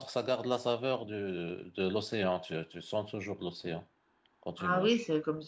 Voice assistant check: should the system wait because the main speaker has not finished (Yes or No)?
No